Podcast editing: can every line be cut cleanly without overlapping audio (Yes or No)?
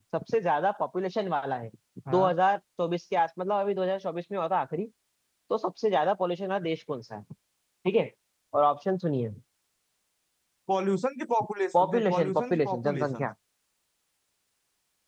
No